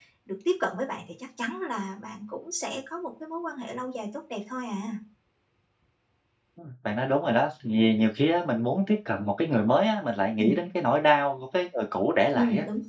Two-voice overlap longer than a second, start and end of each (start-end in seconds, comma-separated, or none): none